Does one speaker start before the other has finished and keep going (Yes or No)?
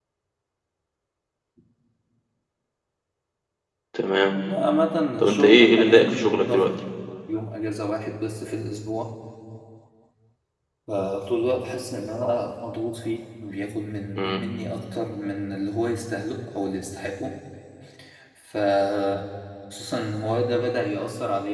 Yes